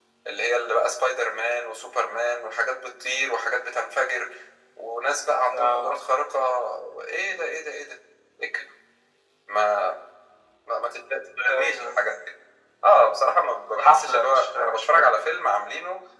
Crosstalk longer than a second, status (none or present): present